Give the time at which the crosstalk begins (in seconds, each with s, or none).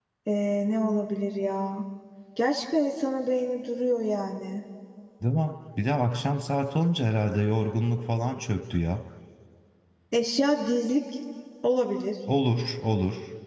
none